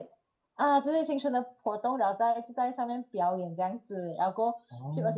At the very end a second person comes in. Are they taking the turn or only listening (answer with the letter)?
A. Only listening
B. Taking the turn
A